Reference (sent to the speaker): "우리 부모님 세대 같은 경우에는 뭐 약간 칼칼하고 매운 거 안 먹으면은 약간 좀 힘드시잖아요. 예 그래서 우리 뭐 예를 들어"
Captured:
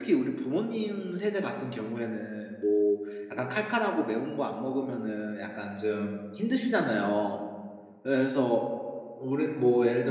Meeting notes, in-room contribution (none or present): none